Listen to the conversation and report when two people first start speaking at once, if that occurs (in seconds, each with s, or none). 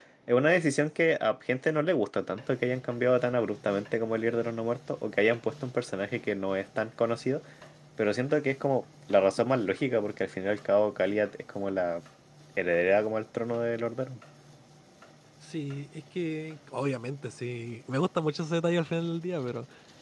none